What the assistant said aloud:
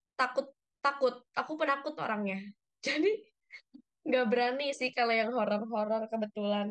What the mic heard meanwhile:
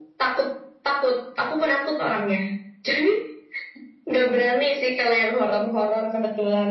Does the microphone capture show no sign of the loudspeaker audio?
No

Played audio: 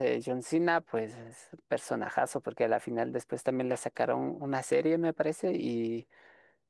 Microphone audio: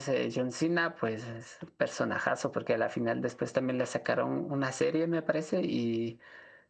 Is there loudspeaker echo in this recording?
Yes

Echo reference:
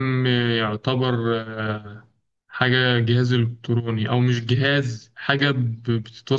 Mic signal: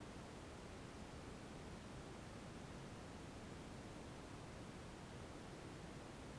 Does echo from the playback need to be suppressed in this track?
No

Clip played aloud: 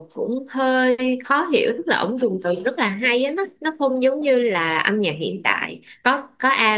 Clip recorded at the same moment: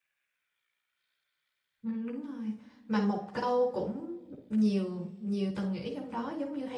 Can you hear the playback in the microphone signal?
No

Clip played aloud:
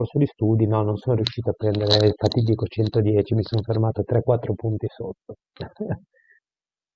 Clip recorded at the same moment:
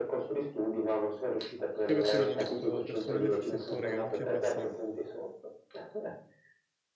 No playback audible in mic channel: No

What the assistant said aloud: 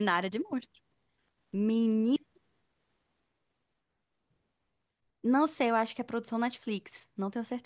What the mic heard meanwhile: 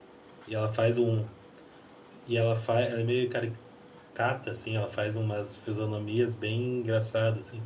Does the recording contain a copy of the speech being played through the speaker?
No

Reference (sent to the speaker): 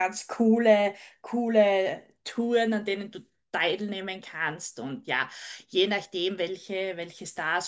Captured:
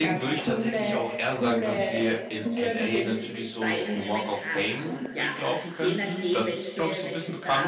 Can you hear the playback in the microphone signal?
Yes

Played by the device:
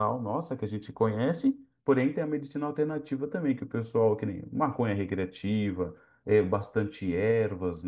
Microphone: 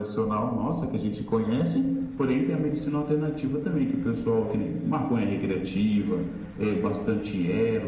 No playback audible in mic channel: No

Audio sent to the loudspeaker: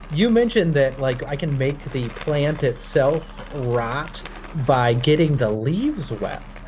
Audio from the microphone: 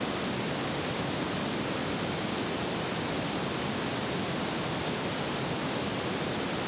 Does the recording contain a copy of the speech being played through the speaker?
No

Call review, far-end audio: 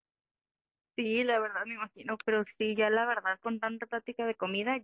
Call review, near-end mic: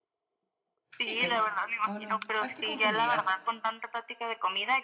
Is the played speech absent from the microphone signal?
No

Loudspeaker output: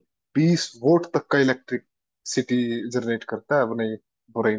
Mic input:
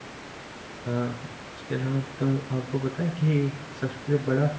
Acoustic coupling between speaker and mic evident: No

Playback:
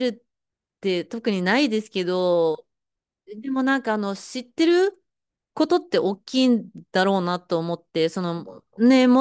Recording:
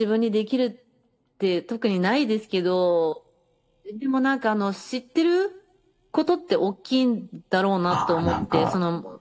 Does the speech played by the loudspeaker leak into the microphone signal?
Yes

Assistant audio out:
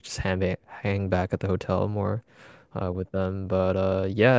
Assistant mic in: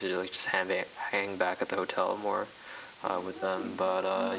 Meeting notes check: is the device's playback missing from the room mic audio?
No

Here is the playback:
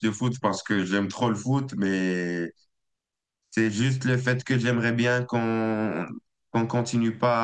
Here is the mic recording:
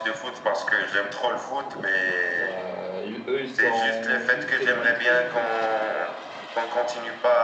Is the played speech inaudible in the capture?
No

